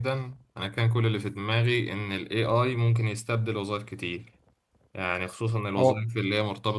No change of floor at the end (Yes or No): Yes